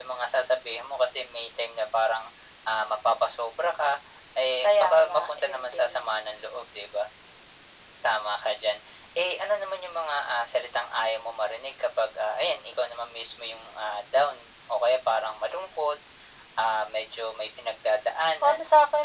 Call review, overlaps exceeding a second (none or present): present